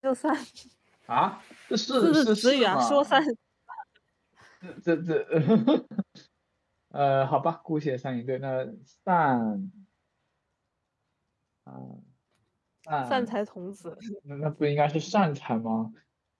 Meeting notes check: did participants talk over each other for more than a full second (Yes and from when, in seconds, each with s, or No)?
Yes, from 2.0 s